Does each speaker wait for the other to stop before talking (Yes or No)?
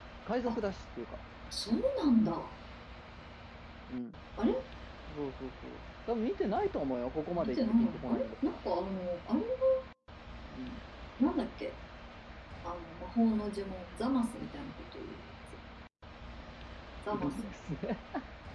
No